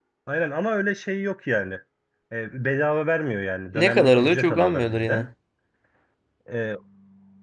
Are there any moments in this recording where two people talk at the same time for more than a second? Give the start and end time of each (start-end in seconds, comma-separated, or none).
3.8-5.3